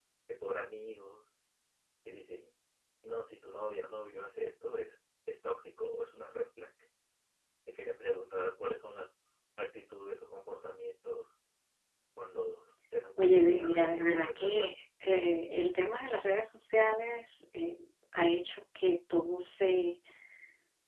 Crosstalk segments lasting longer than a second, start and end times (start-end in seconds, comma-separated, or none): 13.2-14.8